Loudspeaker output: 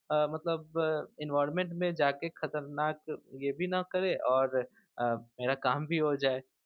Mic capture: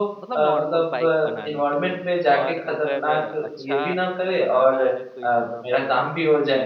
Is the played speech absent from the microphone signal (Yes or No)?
No